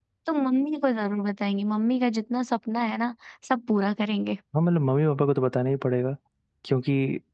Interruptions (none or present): none